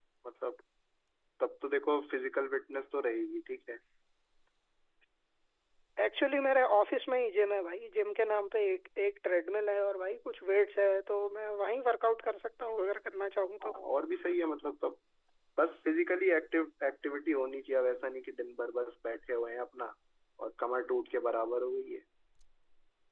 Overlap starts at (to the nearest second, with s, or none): none